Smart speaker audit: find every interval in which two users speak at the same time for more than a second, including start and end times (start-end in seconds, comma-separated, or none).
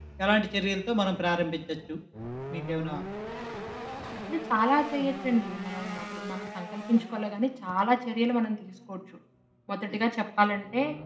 none